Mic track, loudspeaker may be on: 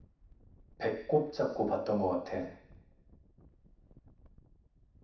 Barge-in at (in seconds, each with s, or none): 0.8 s